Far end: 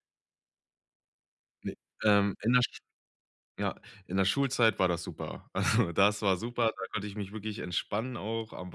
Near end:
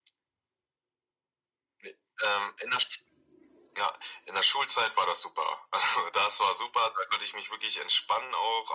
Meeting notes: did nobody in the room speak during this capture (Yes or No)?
Yes